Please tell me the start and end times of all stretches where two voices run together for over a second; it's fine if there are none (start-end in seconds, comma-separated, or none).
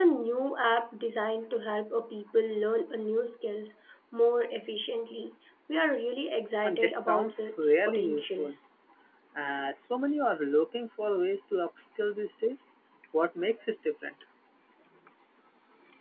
6.6-8.5